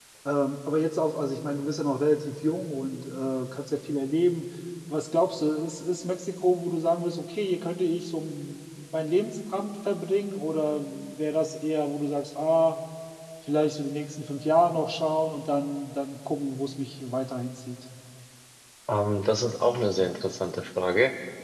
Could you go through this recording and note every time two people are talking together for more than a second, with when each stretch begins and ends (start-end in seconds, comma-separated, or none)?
none